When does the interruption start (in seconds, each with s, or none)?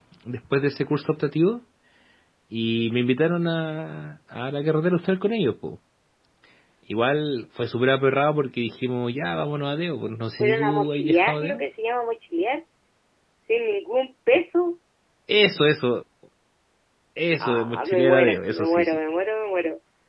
10.4 s